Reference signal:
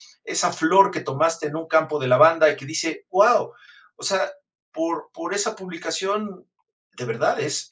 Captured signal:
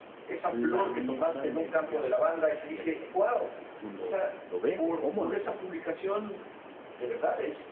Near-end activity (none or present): present